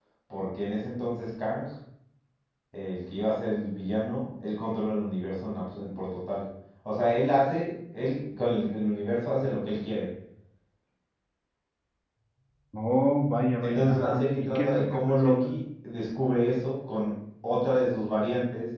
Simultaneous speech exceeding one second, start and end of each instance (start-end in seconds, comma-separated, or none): 13.6-15.5